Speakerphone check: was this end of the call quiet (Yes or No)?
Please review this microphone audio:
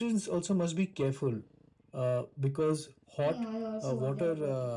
No